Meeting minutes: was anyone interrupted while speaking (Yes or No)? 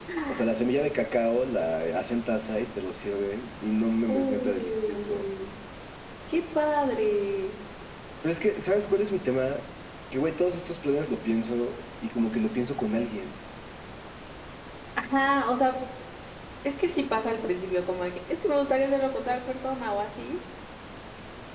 Yes